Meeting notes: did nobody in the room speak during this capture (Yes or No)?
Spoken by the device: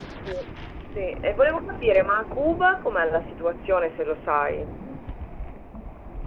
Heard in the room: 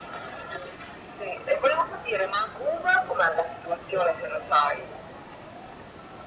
Yes